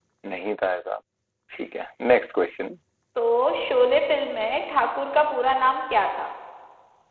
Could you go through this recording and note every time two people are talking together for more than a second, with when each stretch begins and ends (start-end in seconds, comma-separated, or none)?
none